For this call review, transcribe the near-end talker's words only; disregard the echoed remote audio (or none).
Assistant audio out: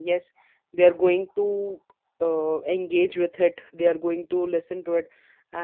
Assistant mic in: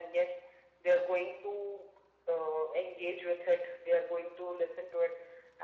none